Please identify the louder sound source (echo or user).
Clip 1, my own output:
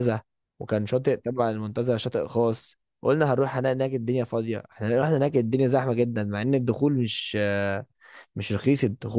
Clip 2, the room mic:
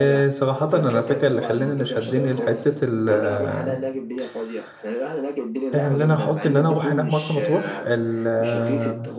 user